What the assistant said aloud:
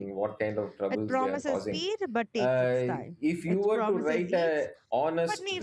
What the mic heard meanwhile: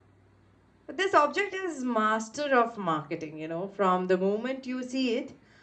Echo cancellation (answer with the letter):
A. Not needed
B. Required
A